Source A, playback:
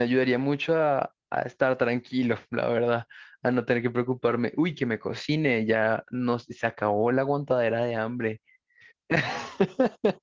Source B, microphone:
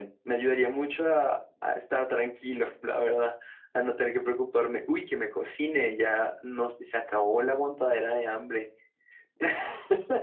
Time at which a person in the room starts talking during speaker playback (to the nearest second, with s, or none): none